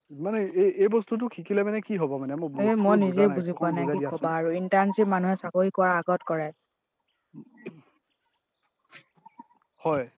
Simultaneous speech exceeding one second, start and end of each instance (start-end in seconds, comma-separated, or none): 2.6-4.3